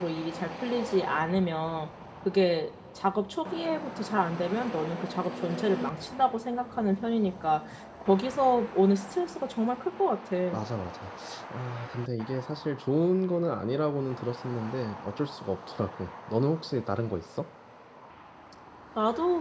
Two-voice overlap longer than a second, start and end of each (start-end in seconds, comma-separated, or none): none